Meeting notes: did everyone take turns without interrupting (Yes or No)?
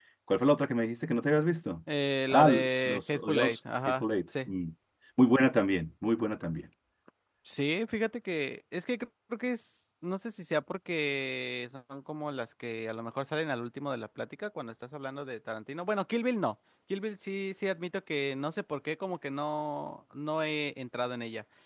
No